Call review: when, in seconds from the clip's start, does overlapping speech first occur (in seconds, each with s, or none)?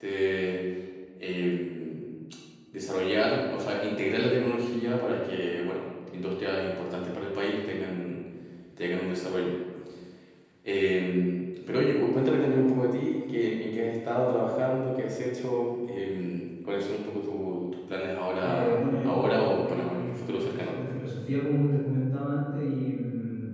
18.4 s